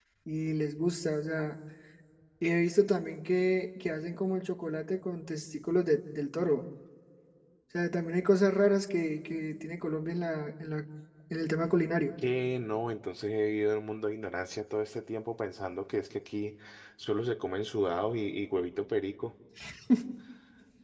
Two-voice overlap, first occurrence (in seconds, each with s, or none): none